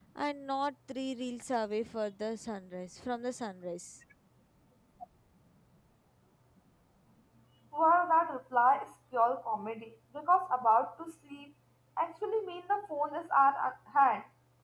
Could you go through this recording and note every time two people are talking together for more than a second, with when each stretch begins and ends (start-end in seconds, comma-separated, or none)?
none